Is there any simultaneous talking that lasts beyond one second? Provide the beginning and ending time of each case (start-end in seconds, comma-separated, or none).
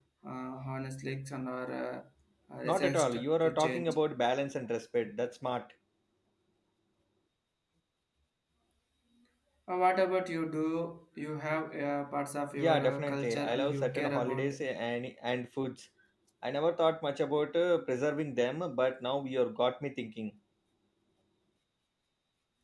2.6-4.0, 12.6-14.5